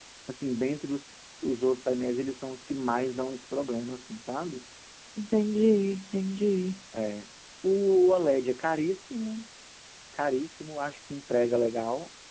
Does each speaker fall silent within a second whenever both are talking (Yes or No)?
Yes